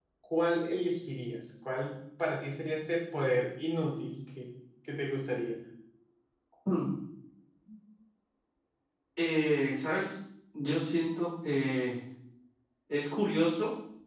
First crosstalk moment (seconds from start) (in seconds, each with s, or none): none